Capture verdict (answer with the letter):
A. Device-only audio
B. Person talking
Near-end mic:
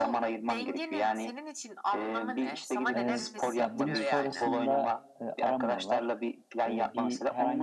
B